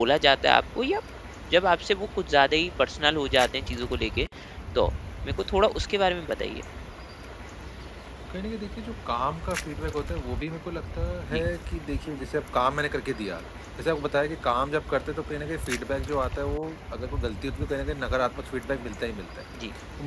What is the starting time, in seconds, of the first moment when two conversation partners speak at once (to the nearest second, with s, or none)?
none